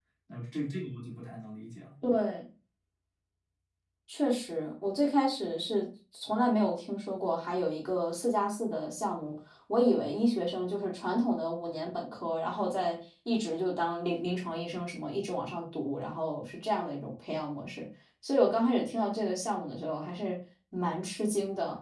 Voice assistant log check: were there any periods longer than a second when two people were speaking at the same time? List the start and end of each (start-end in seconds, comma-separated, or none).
none